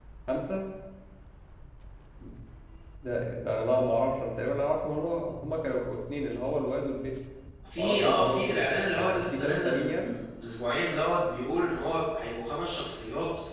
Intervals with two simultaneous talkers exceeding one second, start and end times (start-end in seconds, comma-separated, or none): 7.8-10.1